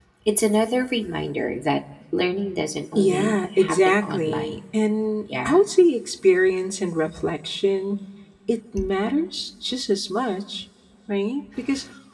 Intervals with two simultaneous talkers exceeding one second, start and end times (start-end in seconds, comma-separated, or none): 3.0-4.6